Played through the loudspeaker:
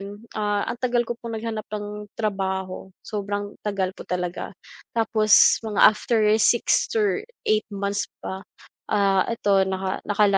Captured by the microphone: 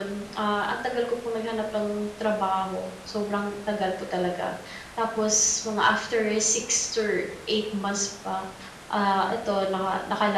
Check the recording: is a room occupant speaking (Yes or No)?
No